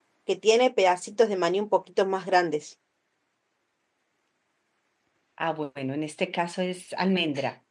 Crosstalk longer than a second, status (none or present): none